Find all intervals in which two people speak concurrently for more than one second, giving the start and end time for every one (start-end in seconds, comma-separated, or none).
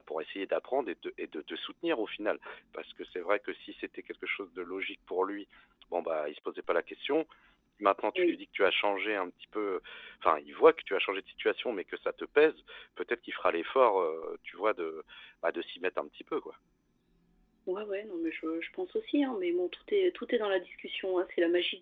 none